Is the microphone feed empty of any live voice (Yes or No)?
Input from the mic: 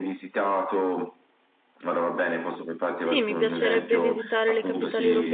No